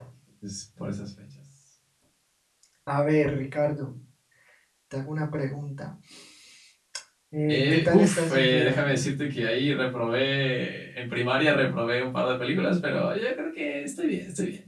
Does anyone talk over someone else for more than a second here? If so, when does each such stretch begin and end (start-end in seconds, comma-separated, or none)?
7.5-9.0